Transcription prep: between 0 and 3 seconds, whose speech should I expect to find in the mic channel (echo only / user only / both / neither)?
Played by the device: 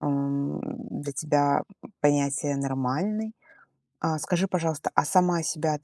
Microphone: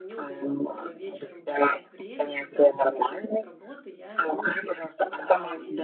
both